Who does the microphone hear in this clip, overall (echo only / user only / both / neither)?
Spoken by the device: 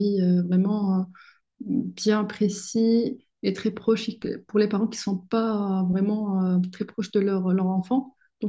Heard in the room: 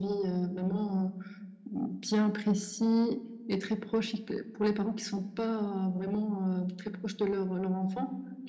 echo only